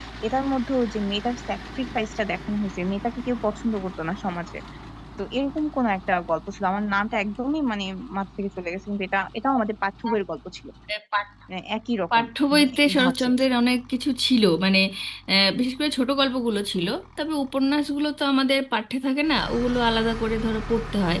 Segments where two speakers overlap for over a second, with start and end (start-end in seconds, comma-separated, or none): 12.2-13.4